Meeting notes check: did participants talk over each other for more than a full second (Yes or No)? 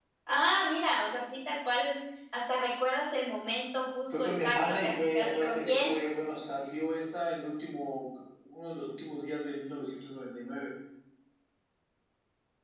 Yes